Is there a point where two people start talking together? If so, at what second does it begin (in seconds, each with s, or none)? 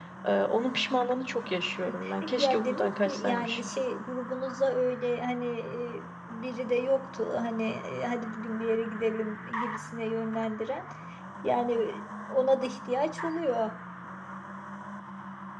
2.4 s